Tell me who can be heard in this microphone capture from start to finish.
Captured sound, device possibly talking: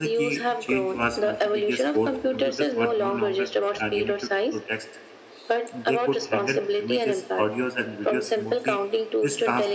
both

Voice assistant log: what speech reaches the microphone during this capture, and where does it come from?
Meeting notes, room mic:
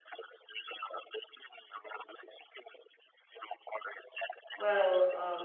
both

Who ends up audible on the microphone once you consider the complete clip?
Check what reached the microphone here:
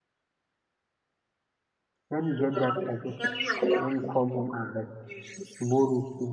both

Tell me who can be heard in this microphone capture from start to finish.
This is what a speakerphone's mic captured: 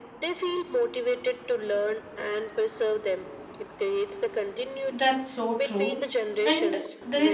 both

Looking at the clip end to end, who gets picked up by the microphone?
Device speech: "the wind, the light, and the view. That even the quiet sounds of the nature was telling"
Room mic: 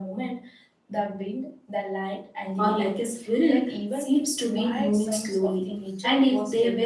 both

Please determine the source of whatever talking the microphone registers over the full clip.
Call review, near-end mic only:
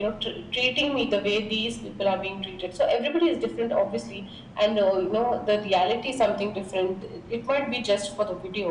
echo only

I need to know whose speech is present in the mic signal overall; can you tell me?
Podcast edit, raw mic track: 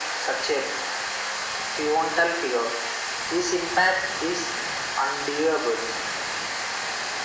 echo only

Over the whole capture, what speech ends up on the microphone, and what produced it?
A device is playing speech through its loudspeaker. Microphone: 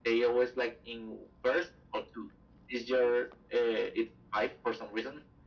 echo only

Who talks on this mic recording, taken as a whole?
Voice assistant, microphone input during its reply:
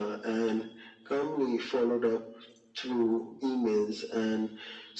echo only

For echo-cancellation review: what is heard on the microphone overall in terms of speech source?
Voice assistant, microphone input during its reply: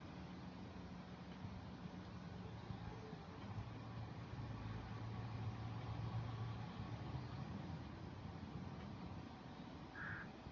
neither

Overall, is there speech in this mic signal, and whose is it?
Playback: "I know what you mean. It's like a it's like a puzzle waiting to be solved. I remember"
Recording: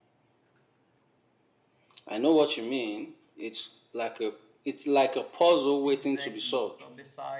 both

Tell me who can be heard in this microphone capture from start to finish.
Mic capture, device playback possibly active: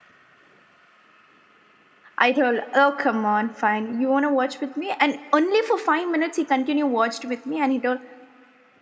user only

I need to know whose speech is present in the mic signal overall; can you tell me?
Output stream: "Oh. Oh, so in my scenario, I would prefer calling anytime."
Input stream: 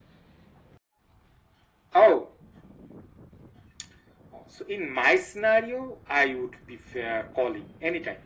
echo only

